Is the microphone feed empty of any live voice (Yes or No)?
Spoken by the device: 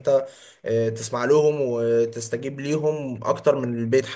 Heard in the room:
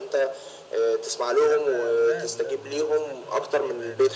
No